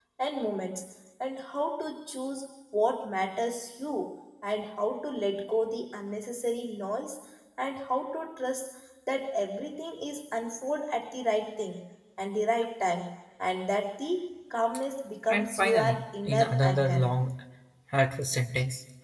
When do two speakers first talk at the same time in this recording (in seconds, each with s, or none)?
15.3 s